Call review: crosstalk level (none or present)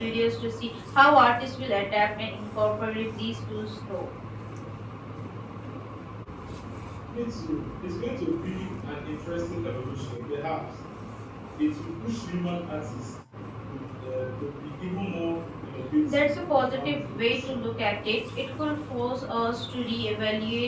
present